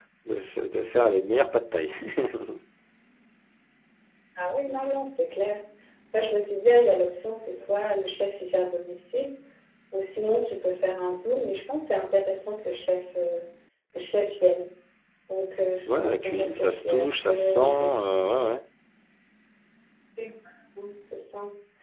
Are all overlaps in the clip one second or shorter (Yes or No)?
No